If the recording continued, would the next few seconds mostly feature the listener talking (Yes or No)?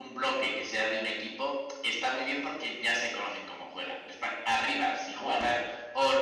No